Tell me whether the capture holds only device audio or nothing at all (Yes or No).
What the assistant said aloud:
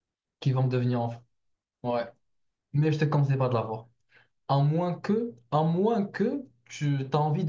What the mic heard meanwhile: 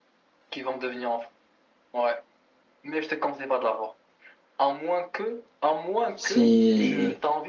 No